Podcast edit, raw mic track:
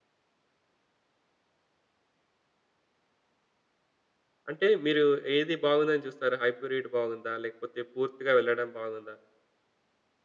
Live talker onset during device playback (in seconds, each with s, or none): 4.5 s